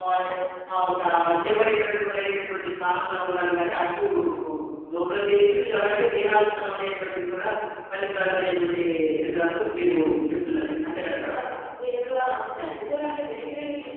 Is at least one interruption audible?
No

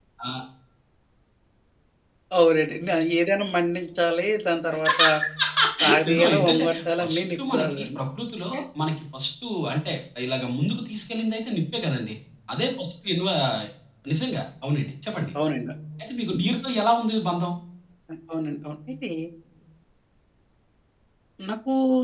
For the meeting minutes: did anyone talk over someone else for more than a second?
Yes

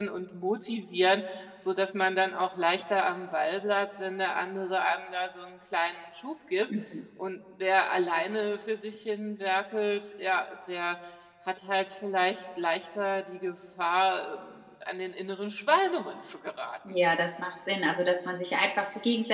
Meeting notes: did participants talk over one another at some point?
No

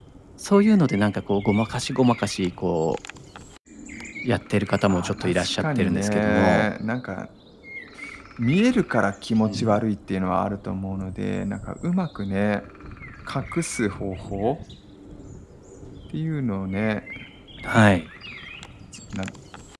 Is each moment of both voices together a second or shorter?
No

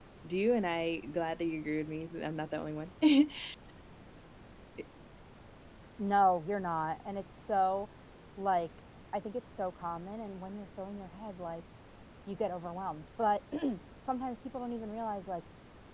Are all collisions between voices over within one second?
Yes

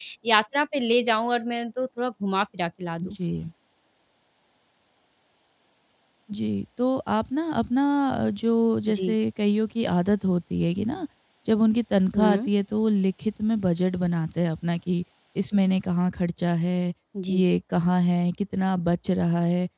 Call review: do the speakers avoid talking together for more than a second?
Yes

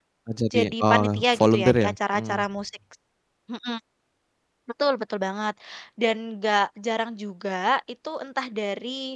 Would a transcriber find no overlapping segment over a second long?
No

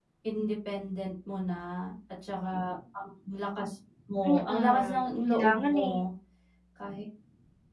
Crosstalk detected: Yes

